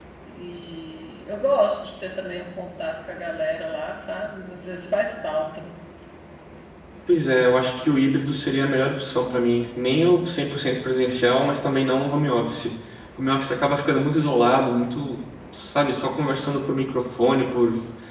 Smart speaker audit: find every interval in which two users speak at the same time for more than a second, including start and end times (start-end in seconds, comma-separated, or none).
none